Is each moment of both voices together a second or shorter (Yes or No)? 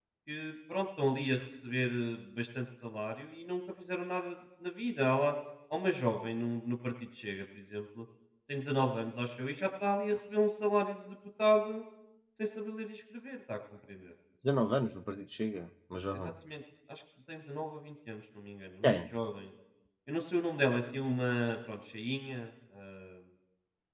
Yes